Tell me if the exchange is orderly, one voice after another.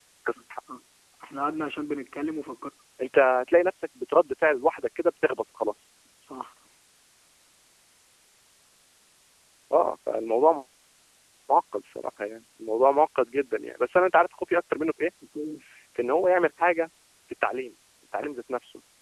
Yes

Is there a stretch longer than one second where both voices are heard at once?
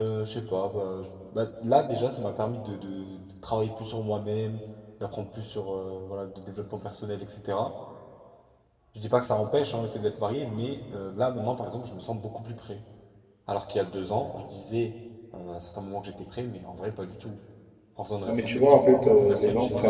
Yes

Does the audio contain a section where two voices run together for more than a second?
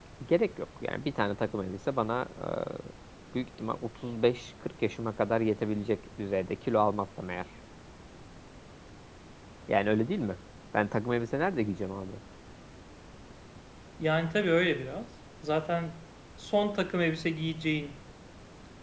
No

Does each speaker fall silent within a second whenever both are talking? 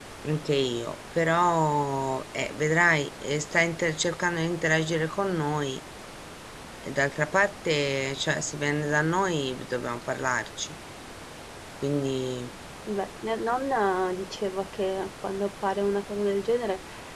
Yes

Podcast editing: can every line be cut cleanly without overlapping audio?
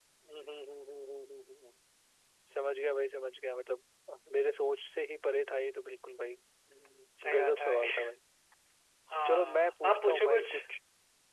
No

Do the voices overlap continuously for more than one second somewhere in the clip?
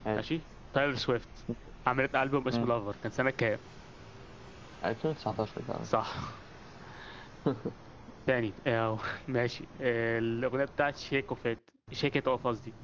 No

